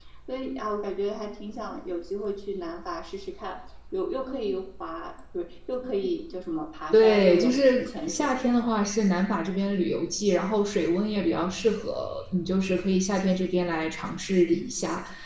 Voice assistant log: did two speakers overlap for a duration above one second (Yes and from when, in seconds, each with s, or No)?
Yes, from 6.9 s